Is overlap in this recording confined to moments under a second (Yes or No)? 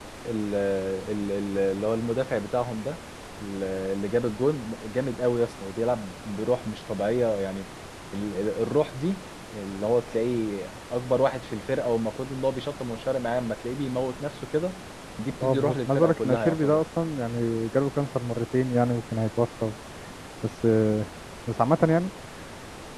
No